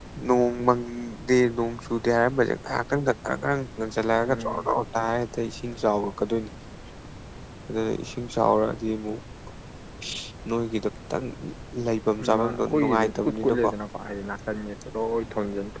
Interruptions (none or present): present